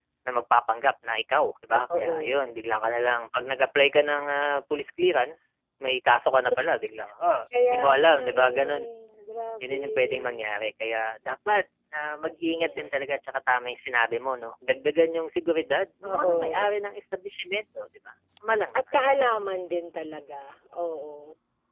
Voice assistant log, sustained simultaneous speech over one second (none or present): present